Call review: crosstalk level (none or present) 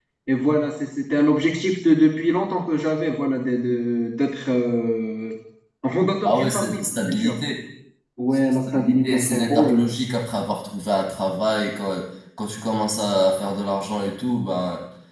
present